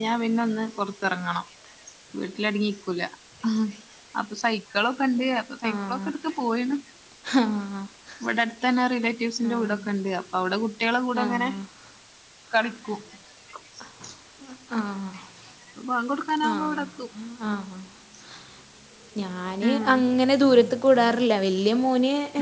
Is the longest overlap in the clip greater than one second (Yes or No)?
No